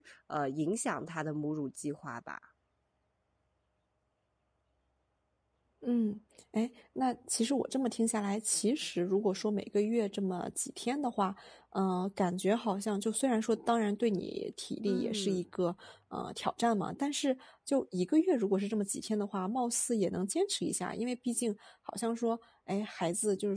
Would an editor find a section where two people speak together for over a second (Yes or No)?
No